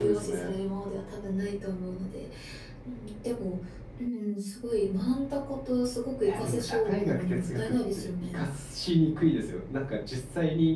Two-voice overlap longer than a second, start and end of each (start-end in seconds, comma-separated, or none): 6.2-8.4